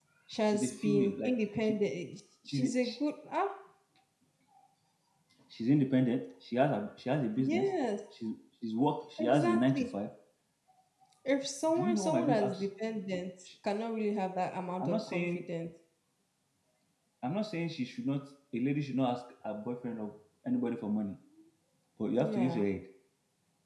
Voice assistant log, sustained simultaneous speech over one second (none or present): present